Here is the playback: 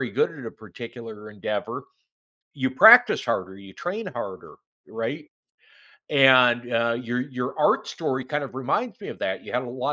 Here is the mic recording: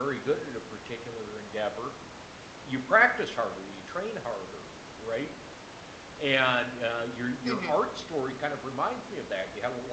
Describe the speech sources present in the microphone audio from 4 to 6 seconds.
echo only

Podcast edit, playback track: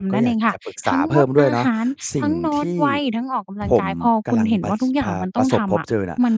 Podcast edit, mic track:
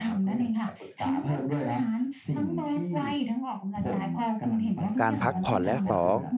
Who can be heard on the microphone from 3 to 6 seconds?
both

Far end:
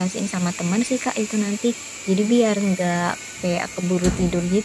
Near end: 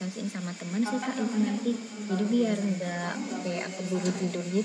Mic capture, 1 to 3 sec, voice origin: both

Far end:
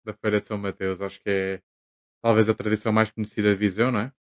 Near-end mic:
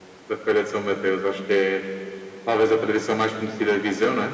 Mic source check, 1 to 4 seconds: echo only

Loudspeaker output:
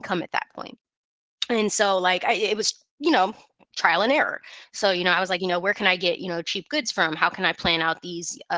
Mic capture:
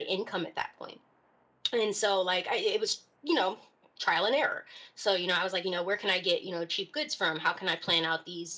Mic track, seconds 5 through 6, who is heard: echo only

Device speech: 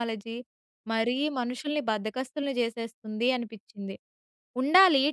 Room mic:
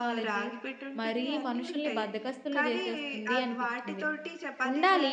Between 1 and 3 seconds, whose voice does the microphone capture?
both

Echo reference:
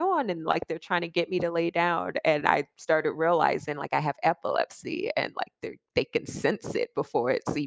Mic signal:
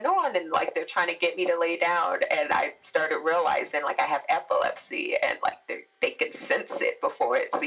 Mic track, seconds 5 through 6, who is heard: echo only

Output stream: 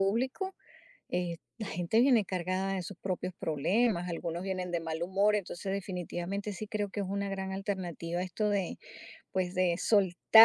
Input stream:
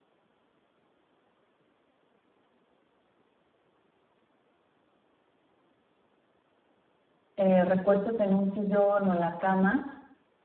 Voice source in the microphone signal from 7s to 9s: user only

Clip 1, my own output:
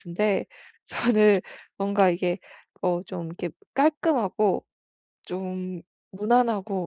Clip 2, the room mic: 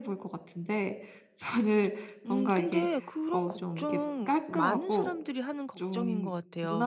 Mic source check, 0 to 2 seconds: echo only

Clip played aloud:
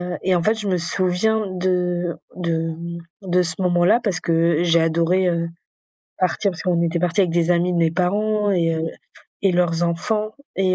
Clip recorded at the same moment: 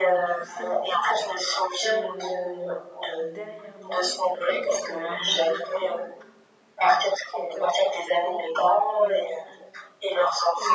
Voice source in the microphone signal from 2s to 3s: both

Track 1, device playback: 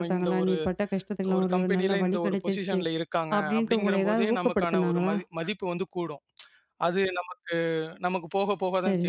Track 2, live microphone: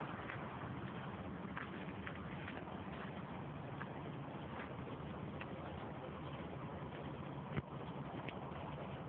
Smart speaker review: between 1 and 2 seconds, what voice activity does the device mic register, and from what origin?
neither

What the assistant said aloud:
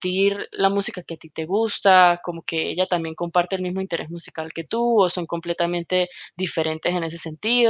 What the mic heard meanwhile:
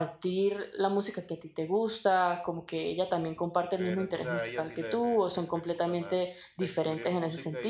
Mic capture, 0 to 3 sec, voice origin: echo only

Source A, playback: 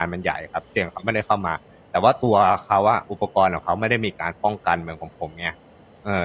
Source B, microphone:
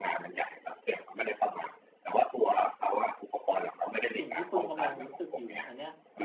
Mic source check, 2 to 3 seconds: echo only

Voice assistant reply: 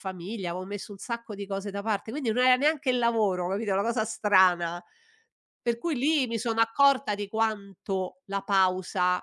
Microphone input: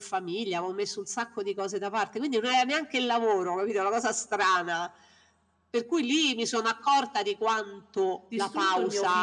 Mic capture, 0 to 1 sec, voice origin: echo only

